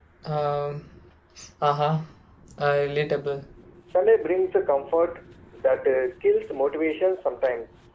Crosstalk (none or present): none